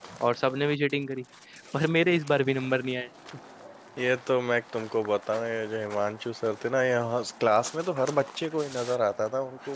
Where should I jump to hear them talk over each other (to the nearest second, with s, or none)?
none